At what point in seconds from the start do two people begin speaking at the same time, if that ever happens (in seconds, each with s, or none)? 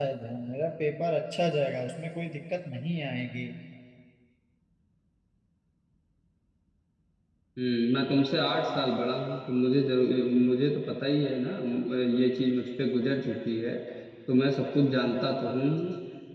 none